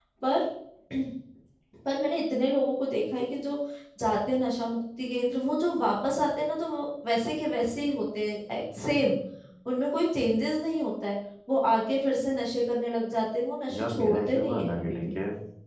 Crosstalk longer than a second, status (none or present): present